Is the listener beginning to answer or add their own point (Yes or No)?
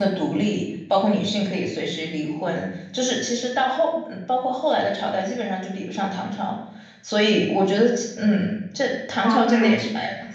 Yes